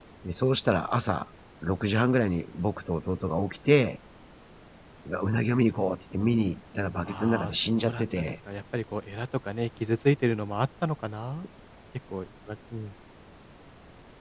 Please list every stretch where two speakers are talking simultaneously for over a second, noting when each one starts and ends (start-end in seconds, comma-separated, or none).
7.0-8.3